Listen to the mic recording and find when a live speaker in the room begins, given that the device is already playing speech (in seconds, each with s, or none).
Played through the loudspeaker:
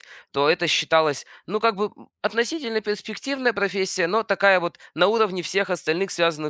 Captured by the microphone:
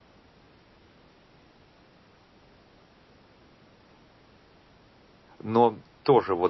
5.4 s